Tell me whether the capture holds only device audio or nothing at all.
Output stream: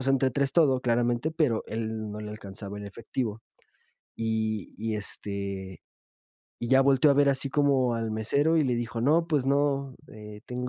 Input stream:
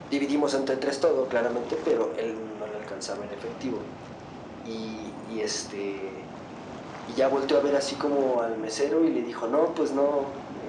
Yes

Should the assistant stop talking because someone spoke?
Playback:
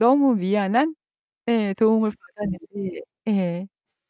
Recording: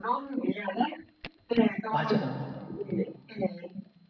Yes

